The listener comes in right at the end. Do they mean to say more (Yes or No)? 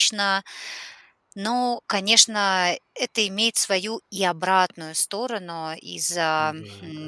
No